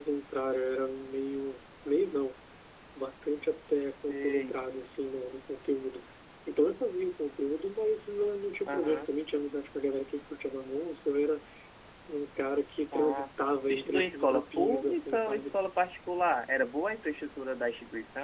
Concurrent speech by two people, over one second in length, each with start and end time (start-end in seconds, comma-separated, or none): 13.7-15.6